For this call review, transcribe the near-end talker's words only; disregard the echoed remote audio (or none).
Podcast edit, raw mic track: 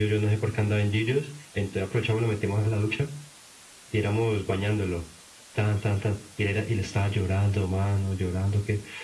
none